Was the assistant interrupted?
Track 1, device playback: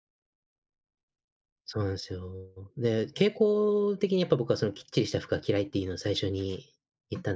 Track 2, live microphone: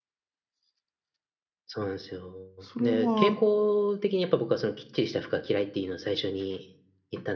Yes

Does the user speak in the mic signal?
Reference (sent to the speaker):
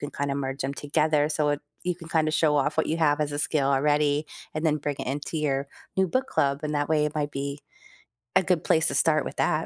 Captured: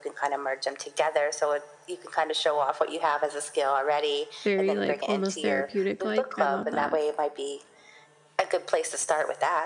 Yes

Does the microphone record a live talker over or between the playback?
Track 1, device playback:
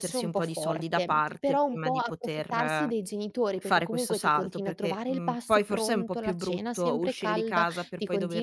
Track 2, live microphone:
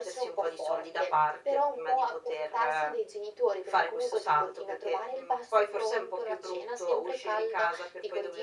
No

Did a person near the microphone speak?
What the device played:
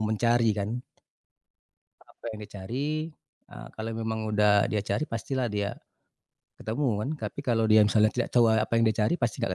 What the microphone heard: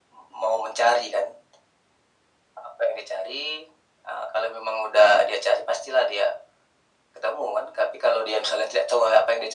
No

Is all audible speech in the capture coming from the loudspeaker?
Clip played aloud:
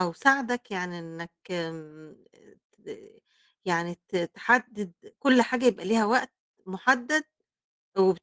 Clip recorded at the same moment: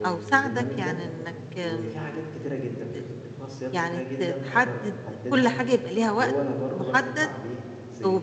No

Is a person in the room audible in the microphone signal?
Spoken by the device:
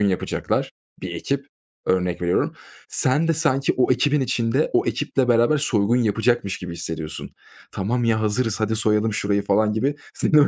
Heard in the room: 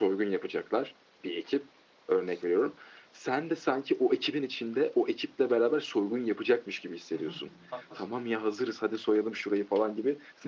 Yes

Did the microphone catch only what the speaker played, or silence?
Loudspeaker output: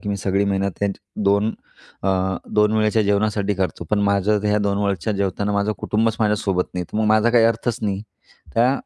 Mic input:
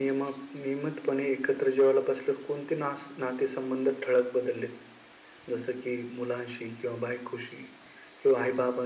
No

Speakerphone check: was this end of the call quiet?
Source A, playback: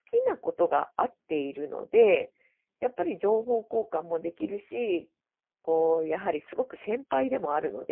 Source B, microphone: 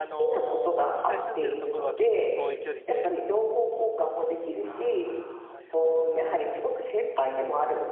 No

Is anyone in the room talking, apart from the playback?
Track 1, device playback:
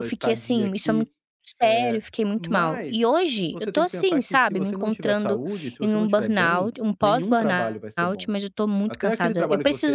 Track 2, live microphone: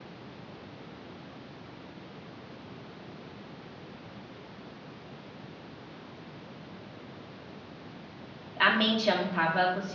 Yes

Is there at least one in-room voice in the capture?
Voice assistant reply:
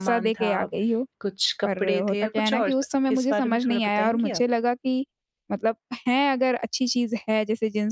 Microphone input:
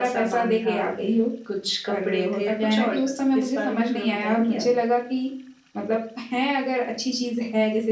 No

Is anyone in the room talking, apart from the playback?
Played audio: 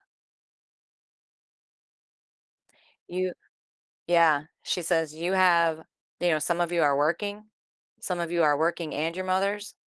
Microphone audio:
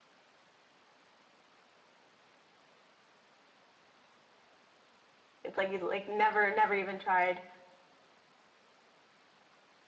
Yes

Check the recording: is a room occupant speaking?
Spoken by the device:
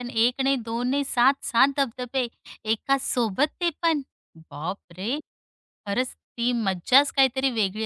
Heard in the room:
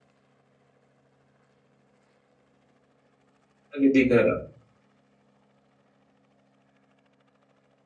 Yes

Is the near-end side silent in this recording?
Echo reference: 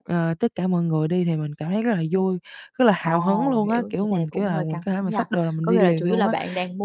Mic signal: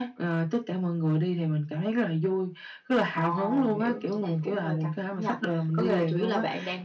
Yes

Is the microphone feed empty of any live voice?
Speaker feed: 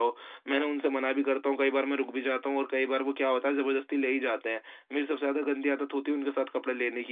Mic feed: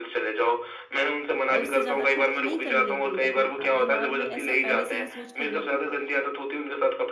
No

